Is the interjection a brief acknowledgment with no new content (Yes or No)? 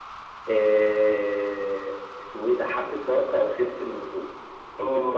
No